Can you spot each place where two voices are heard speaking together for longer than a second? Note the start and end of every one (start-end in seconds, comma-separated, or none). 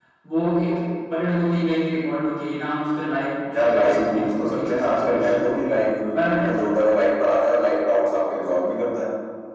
3.6-5.5